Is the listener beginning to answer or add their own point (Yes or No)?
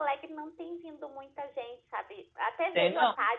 No